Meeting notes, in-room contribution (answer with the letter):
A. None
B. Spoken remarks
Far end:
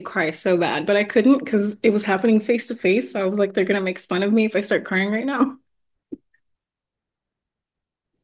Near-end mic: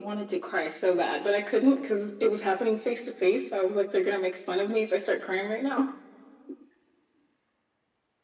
A